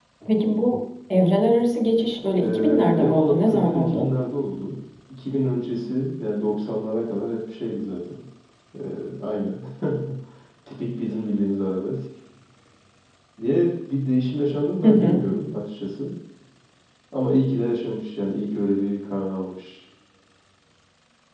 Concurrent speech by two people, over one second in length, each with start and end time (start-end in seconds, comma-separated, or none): 2.4-4.1